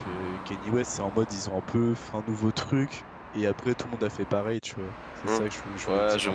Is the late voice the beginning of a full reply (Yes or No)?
Yes